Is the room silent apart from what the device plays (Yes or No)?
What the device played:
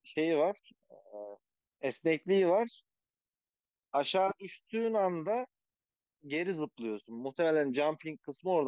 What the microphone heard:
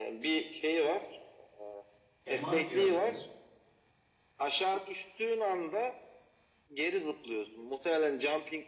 No